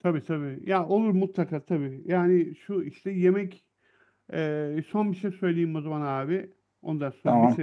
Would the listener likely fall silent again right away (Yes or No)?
Yes